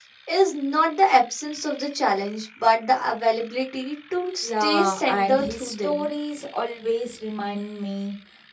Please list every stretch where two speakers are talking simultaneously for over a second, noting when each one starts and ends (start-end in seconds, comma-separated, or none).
4.4-6.1